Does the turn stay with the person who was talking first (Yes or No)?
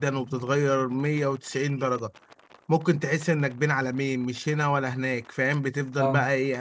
Yes